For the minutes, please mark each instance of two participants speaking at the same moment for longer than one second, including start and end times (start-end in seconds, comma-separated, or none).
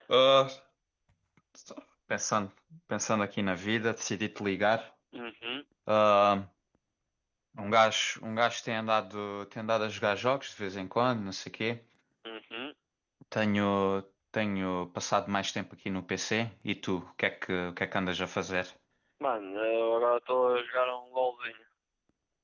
none